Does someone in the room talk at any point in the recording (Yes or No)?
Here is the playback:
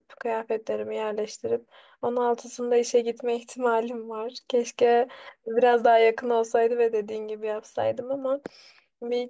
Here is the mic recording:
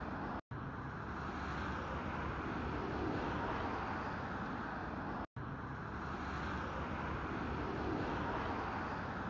No